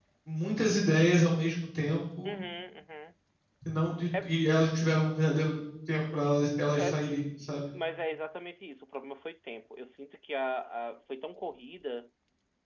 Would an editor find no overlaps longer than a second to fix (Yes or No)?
Yes